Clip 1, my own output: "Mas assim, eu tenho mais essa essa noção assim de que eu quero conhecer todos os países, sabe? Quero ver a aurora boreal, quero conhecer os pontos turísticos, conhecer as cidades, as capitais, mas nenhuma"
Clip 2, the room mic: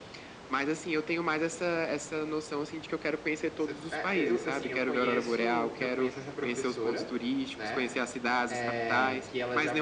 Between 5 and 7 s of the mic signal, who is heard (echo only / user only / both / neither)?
both